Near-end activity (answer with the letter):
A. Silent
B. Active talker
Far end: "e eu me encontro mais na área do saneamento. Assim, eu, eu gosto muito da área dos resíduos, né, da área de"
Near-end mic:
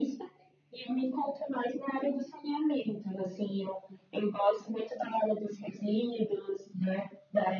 A